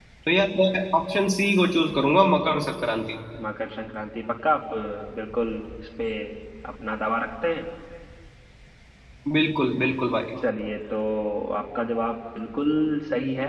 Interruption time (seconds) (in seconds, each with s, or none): none